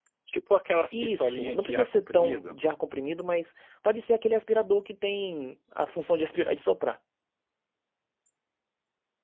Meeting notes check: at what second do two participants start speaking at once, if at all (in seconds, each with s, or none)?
0.9 s